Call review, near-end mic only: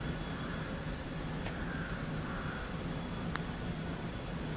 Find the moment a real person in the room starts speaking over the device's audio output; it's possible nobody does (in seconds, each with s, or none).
none